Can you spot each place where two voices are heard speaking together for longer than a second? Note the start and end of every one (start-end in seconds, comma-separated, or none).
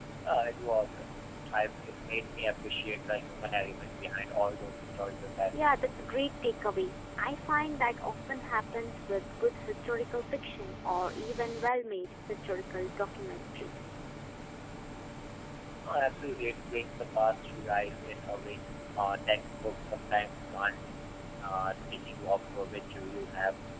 none